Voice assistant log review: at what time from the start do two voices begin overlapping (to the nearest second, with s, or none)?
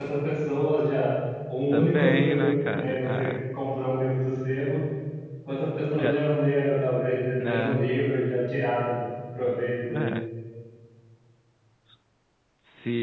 2 s